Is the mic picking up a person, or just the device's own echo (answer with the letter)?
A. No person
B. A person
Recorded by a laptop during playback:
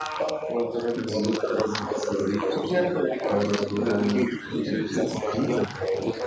A